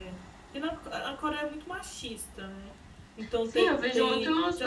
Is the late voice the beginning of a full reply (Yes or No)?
Yes